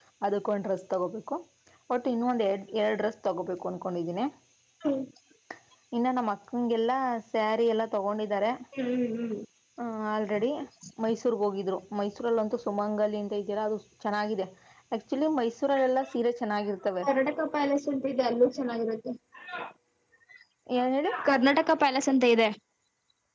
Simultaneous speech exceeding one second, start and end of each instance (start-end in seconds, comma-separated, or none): none